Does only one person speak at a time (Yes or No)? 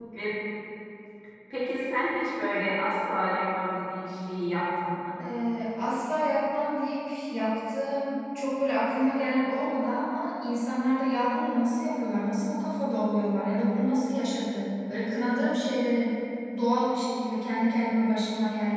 Yes